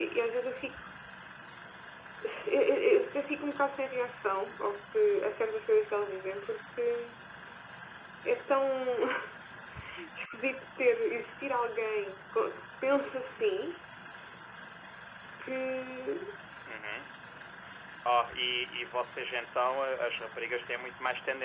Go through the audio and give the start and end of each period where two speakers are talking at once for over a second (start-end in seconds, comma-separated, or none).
none